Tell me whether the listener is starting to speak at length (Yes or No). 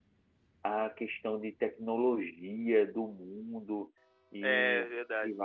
No